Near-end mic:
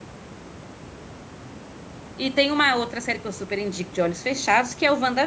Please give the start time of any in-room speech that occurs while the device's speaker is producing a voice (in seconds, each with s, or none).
2.2 s